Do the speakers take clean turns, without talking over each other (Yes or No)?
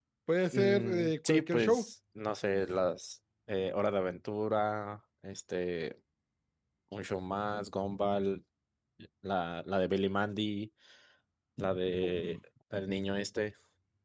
No